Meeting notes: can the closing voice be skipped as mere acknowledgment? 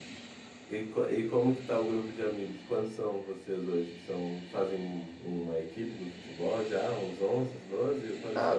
No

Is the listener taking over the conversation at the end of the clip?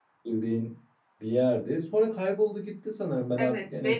Yes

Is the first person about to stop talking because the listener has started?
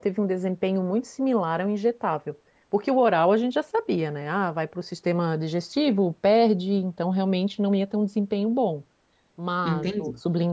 No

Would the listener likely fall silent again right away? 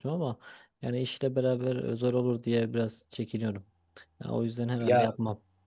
No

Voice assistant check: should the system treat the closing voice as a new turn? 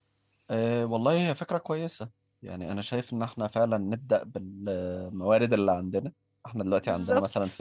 No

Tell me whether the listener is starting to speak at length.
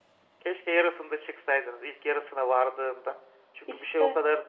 No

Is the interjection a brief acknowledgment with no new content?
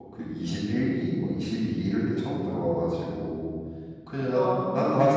Yes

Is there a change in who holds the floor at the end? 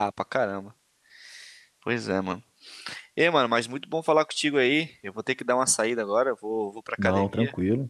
No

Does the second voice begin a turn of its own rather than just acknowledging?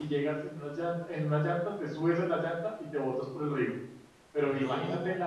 No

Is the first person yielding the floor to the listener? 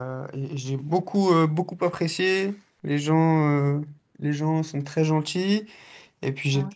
No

